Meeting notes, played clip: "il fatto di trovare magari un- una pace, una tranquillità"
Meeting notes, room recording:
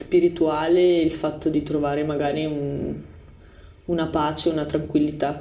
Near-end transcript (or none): none